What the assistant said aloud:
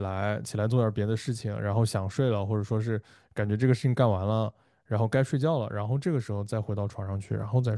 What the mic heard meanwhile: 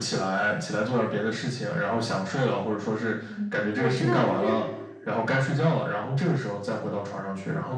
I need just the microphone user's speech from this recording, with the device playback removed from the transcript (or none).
嗯，我知道，就是